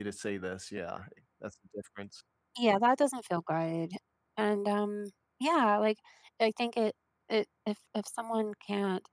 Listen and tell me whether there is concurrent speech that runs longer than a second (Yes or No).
No